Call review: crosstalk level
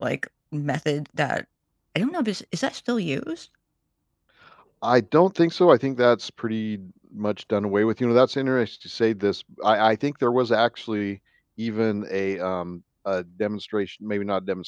none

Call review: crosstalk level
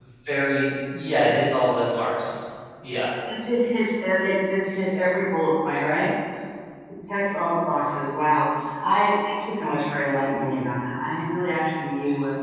none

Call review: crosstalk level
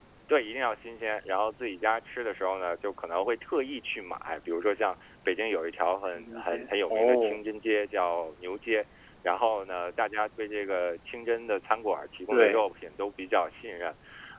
present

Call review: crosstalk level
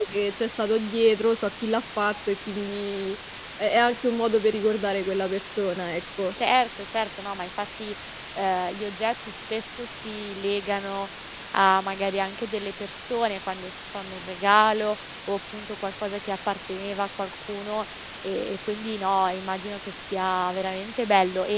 none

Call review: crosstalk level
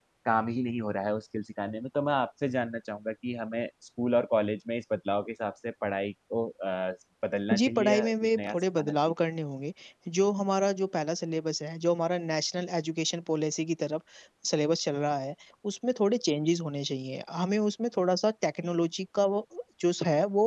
present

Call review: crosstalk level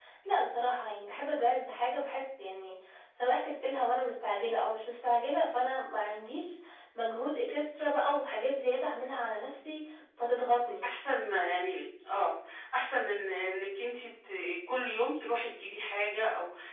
none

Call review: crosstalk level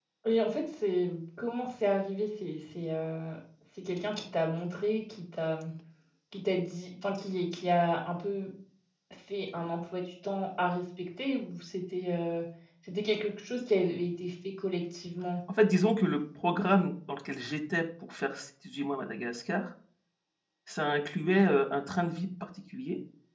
none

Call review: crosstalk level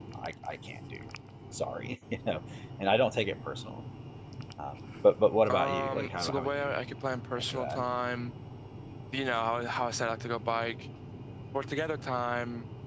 present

